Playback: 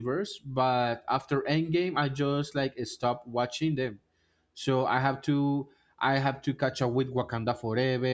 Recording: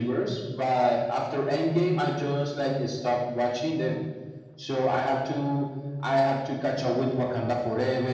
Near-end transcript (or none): none